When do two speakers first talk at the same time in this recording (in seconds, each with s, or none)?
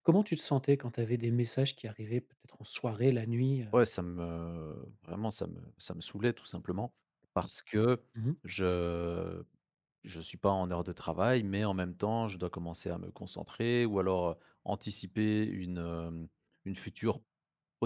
none